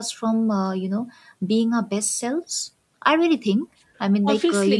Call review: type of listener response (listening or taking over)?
taking over